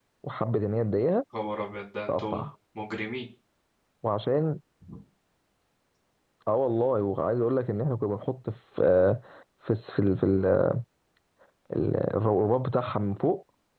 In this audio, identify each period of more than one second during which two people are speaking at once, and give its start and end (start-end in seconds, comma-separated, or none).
none